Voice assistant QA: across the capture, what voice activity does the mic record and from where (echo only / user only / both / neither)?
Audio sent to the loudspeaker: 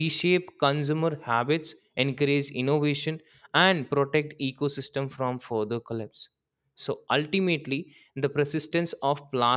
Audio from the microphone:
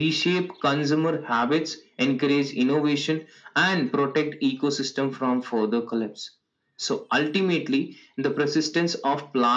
echo only